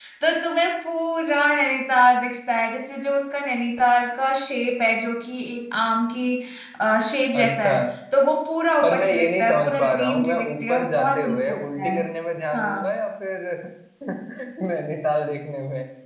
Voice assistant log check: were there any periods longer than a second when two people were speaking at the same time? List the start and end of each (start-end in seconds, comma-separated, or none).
8.8-12.0